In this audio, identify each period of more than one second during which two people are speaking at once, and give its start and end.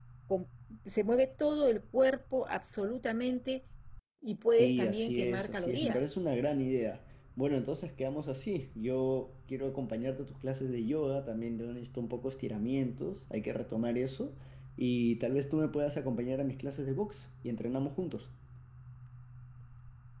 4.5-6.1

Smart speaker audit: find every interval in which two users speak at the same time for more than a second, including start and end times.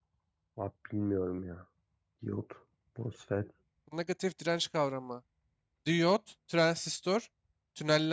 none

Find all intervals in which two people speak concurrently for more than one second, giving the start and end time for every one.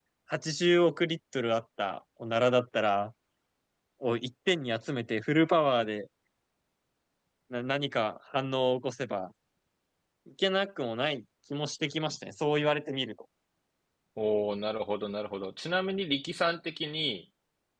none

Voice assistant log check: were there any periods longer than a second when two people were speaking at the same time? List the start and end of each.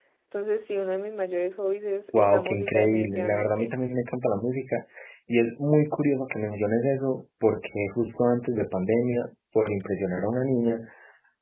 2.2-3.8

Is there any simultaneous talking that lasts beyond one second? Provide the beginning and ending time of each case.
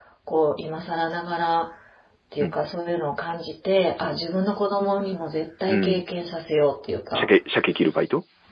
none

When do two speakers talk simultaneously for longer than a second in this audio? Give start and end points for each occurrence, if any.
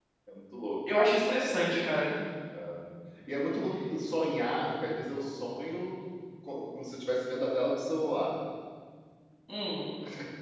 none

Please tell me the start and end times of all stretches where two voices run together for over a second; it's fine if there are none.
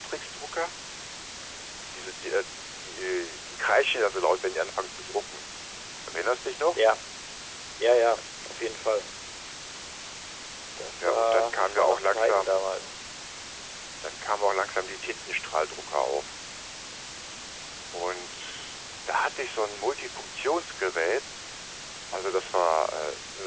11.0-12.6

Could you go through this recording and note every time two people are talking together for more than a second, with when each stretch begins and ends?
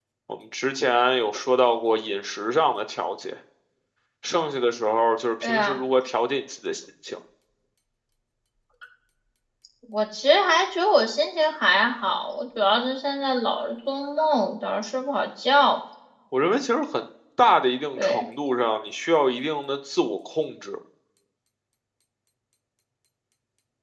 none

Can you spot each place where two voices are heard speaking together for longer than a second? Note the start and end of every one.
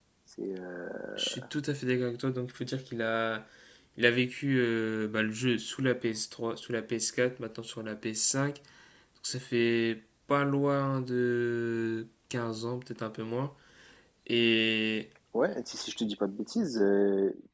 none

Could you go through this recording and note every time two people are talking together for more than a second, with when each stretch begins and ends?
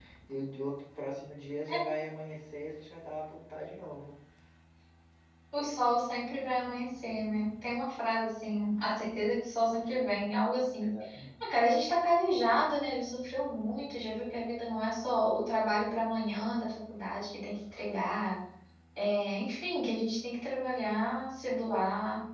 none

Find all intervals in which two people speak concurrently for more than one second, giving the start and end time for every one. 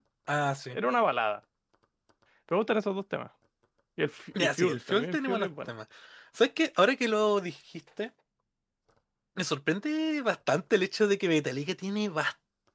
4.4-5.7

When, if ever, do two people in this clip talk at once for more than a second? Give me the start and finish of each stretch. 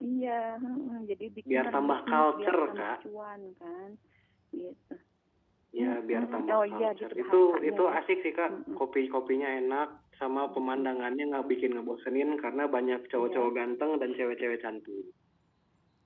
1.5-2.9, 5.8-7.9

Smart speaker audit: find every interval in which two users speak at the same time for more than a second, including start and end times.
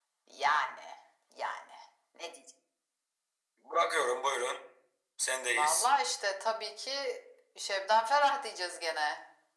none

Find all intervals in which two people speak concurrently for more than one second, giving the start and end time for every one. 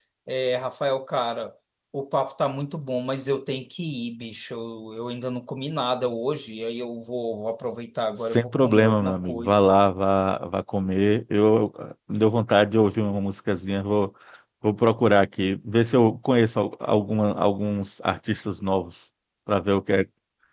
8.2-9.7

